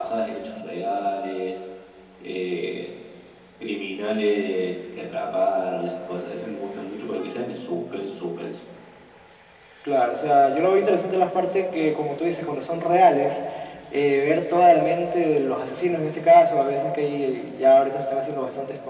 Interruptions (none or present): none